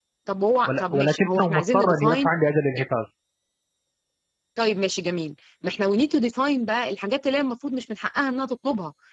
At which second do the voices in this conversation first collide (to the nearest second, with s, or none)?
1 s